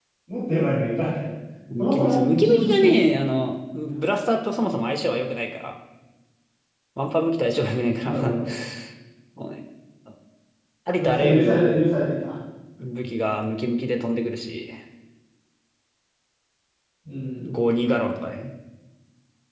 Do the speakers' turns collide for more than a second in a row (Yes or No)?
Yes